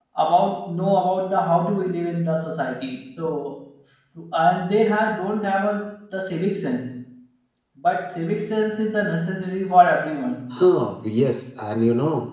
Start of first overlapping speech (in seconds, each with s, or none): none